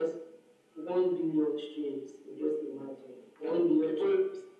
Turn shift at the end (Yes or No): Yes